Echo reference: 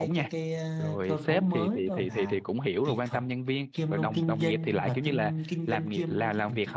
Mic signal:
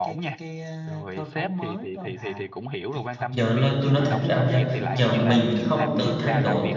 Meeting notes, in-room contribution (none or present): present